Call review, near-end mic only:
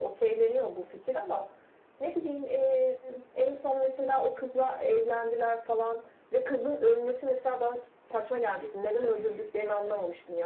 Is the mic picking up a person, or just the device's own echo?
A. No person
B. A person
B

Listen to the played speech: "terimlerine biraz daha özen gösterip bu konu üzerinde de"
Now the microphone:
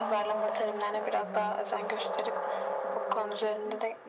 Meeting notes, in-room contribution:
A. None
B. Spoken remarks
B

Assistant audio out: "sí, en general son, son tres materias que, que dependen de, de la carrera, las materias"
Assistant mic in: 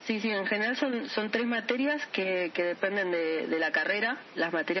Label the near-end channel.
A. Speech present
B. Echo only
B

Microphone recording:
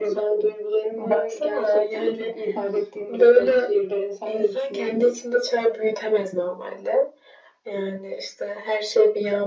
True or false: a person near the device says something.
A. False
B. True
A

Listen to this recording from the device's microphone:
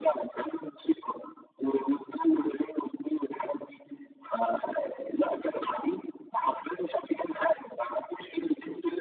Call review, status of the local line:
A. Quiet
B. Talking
A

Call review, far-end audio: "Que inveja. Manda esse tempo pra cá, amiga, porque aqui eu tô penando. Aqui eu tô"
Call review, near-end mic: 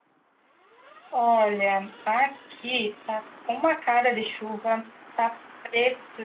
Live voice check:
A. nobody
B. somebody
B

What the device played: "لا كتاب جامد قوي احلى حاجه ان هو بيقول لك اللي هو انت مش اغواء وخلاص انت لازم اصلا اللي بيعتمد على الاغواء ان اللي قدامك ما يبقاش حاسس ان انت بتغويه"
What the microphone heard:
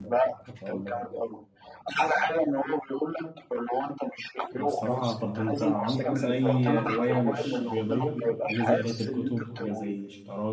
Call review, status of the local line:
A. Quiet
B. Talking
B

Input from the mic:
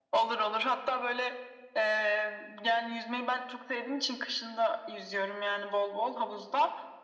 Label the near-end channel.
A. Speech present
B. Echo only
B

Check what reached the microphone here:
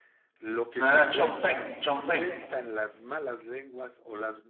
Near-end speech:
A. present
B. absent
A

